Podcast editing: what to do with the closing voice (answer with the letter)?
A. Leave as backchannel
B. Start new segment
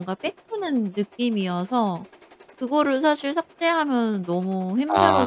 B